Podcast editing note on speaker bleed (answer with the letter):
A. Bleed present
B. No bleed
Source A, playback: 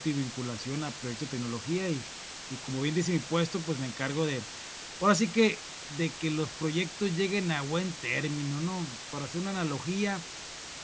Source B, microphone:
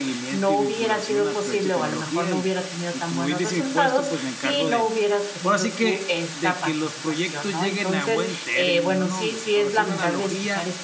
A